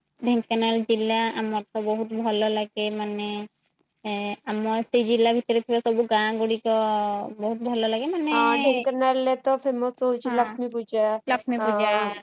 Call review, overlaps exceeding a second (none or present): none